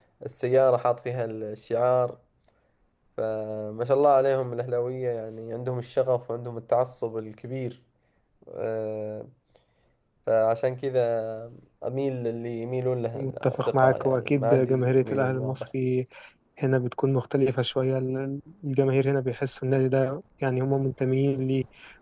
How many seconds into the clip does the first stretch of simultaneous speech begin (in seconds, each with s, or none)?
13.1 s